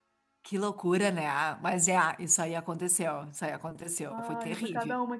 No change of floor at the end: No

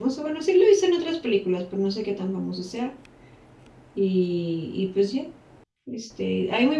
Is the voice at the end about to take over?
No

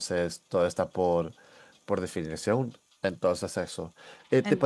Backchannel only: Yes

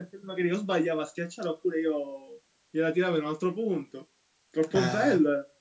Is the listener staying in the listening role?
No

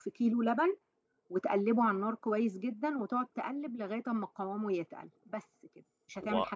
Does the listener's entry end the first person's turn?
Yes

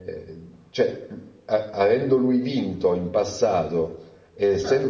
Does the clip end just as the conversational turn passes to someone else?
Yes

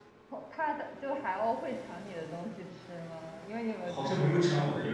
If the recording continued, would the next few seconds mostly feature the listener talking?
Yes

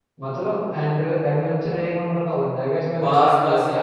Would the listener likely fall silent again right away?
No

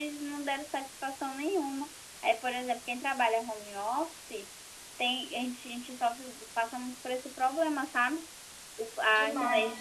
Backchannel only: Yes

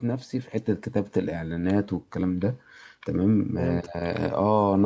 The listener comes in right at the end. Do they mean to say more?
No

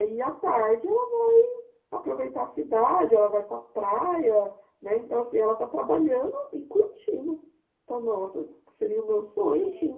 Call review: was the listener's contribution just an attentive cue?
No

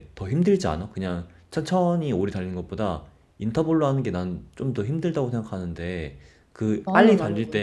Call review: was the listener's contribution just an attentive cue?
Yes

